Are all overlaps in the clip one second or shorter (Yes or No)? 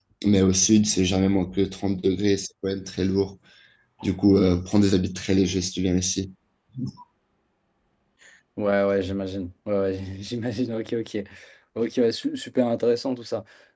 Yes